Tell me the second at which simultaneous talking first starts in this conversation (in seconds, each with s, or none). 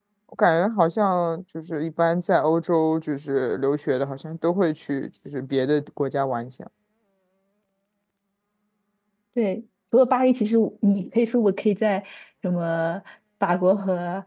none